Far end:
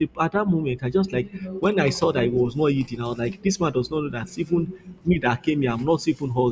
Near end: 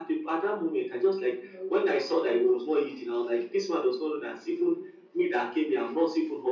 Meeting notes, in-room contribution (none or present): none